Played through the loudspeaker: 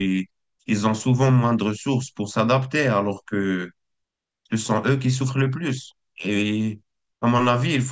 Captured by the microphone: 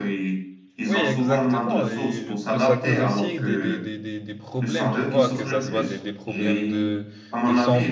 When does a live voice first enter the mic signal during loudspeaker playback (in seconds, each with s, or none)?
0.8 s